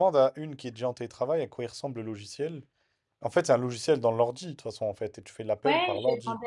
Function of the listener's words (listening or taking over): taking over